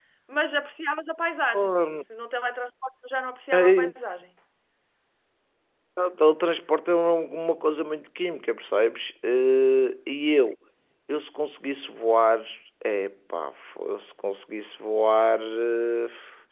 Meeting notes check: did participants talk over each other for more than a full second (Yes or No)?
No